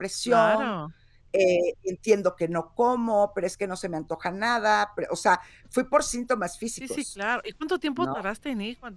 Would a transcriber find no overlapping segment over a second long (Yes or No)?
Yes